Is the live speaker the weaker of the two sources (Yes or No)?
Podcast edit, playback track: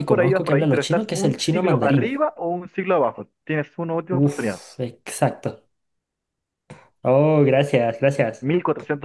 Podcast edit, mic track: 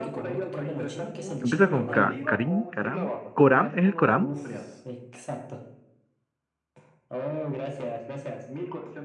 No